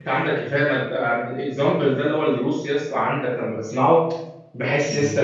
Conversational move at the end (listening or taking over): listening